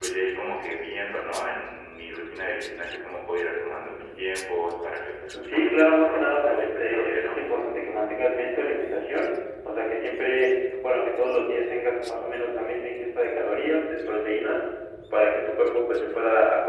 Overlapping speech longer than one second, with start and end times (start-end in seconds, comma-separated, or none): 5.4-7.4